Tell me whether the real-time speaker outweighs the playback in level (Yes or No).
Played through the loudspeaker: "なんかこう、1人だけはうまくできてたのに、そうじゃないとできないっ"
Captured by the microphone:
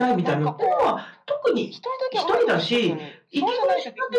Yes